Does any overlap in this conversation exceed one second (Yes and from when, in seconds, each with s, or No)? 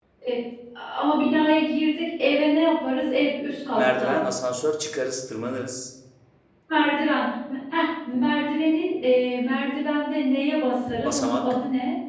No